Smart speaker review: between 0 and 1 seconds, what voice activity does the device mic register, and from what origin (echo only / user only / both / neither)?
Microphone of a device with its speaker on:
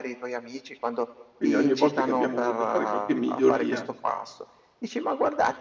echo only